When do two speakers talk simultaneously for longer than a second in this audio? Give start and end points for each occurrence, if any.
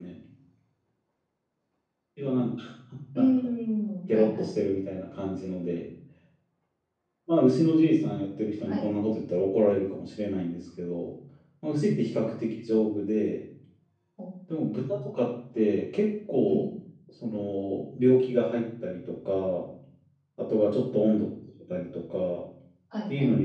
none

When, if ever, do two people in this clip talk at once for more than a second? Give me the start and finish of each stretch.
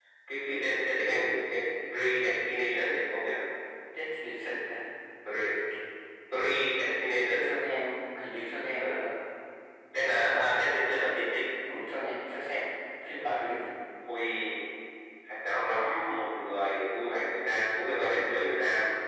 none

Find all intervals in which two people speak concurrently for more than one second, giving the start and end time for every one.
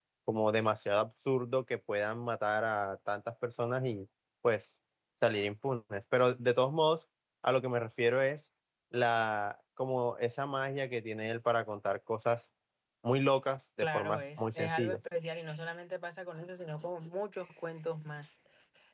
13.8-15.0

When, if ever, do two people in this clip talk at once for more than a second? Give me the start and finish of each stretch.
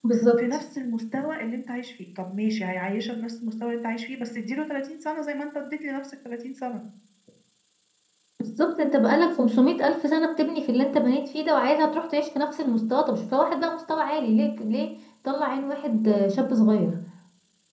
none

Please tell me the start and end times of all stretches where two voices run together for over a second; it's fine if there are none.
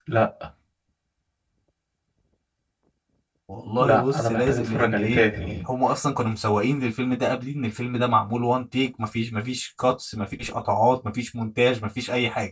3.8-5.2

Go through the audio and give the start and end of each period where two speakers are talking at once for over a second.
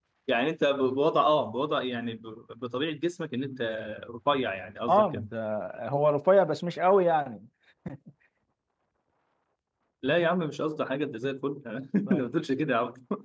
none

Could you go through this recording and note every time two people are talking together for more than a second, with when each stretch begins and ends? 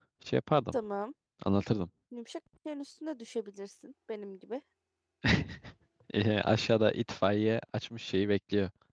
none

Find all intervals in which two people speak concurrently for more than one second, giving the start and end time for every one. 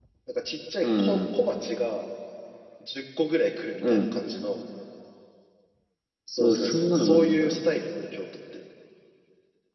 6.4-7.6

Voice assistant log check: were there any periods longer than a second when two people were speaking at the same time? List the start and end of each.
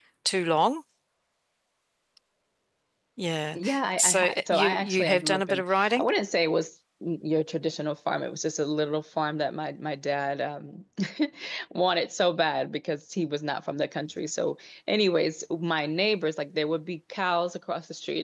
4.0-6.1

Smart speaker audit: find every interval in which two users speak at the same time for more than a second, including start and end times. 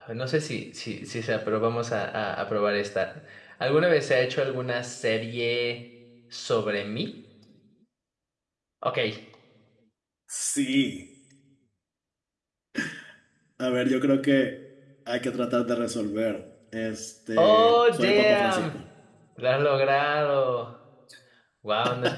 17.4-18.7

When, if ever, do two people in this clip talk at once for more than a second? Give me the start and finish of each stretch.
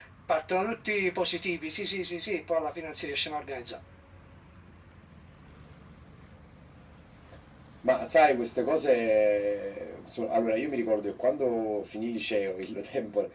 none

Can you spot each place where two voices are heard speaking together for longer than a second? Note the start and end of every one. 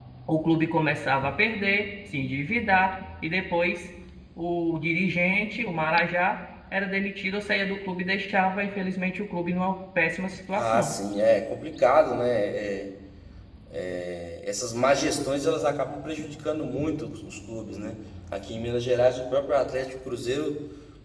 none

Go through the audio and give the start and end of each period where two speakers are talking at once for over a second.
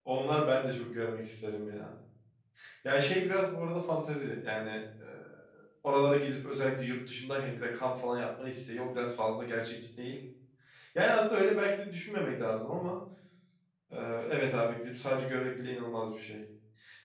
none

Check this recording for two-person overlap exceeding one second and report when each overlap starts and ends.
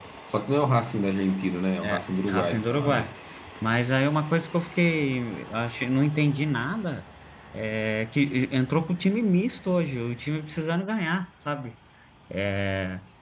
1.8-3.1

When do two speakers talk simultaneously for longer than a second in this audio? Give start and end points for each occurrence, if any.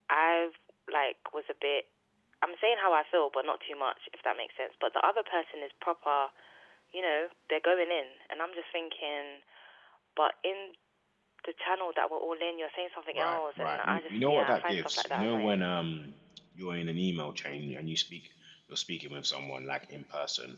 13.2-15.6

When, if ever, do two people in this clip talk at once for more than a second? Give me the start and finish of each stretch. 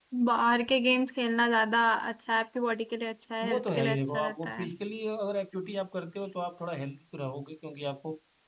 3.4-4.7

